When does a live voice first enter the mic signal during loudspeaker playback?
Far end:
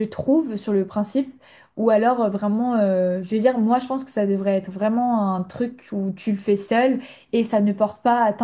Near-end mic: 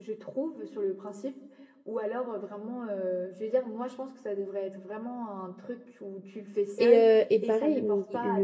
6.8 s

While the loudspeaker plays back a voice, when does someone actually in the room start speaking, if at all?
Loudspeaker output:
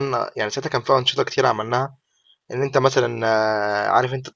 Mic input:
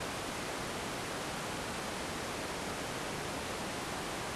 none

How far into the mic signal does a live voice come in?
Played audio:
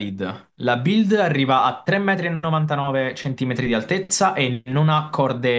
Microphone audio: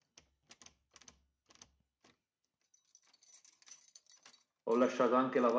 4.7 s

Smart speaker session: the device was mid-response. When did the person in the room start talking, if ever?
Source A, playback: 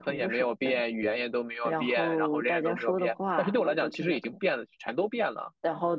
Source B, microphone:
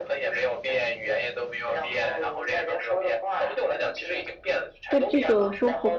4.9 s

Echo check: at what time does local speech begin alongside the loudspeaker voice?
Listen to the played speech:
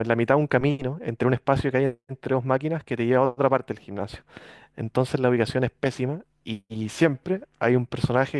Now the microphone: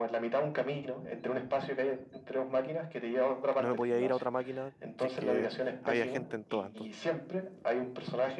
3.6 s

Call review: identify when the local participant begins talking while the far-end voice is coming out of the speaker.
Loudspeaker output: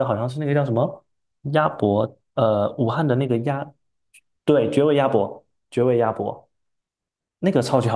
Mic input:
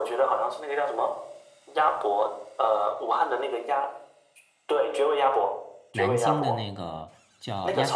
5.9 s

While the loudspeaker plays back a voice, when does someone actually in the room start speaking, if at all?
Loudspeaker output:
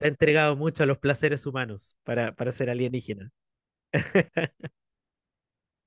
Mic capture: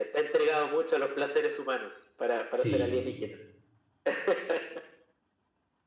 2.5 s

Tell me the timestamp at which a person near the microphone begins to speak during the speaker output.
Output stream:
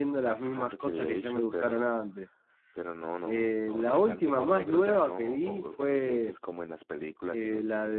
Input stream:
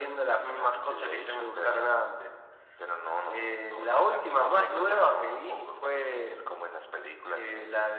none

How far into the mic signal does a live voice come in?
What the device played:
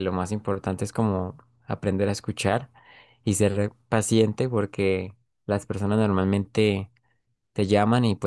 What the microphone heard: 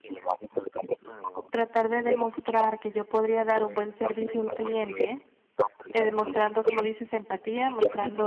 1.5 s

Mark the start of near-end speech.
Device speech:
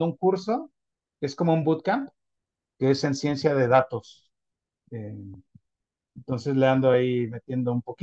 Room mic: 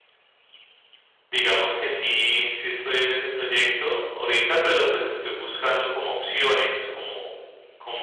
1.3 s

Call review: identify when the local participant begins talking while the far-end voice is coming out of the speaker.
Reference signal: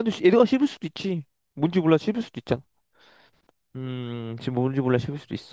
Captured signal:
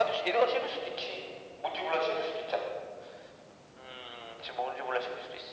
none

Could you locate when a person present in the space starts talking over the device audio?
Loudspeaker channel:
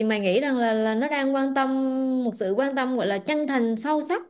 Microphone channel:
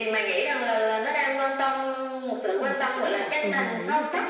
2.5 s

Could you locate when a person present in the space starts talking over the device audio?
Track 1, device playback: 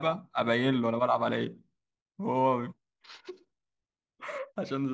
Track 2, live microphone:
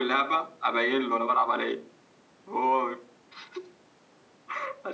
none

